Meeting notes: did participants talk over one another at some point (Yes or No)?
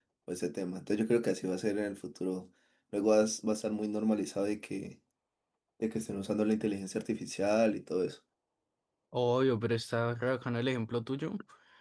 No